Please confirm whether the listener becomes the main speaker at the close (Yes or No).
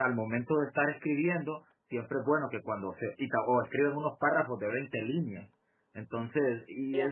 No